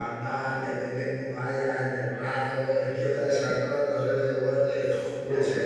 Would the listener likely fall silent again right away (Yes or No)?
Yes